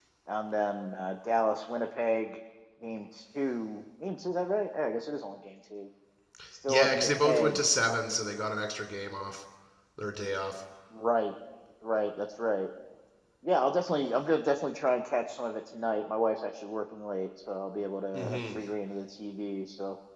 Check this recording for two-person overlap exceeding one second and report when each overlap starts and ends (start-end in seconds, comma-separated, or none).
6.7-8.0